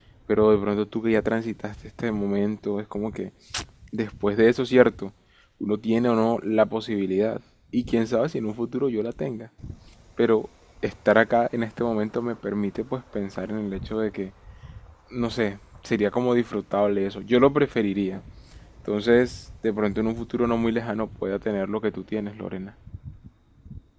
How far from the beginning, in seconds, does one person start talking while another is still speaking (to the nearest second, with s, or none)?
none